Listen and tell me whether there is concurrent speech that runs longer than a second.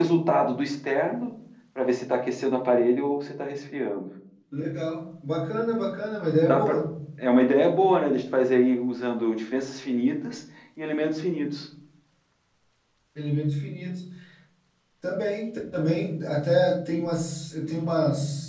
No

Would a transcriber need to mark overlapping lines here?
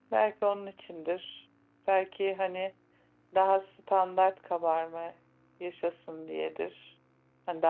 No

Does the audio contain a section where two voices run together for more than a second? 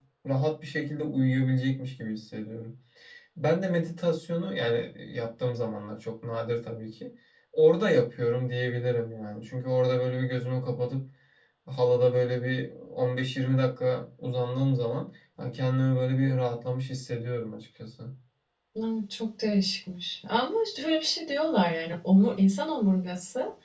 No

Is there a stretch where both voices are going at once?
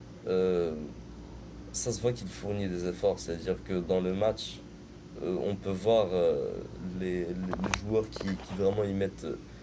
No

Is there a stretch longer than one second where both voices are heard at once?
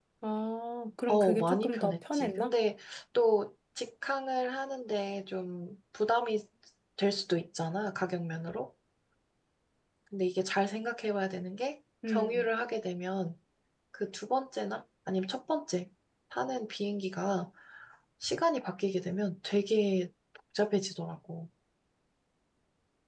Yes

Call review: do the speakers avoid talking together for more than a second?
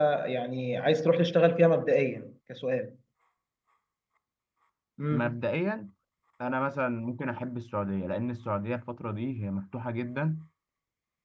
Yes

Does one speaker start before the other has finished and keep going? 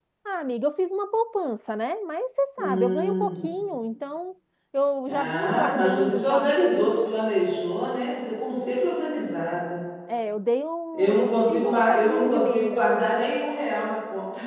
Yes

